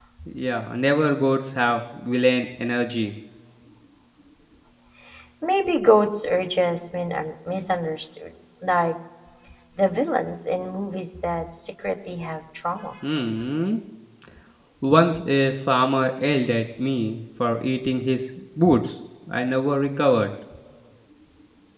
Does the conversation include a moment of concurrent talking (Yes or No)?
No